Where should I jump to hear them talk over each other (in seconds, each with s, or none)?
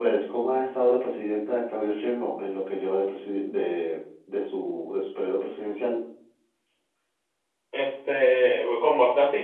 none